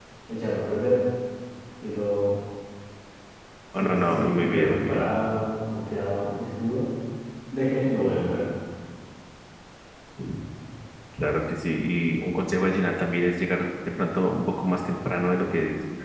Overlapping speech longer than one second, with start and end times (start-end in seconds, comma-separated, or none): 3.8-5.1